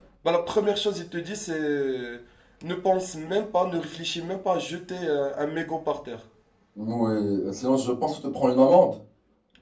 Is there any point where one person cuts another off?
No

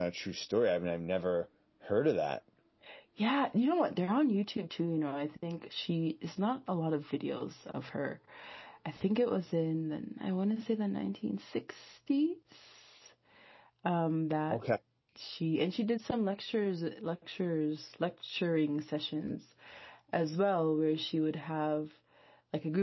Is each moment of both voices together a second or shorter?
Yes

